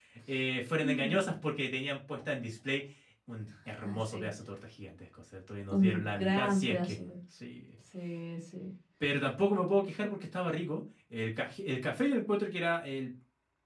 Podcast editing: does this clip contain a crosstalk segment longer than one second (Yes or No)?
Yes